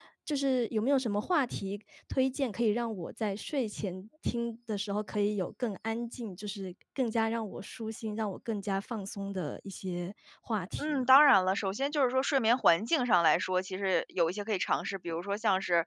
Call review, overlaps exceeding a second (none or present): none